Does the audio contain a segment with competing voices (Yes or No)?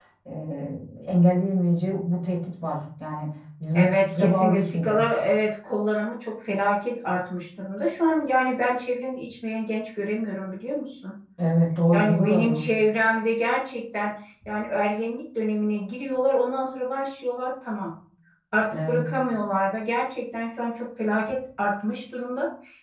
Yes